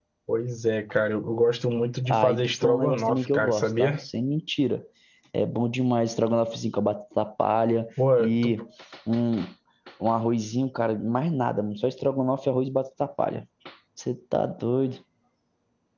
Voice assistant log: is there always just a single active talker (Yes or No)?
No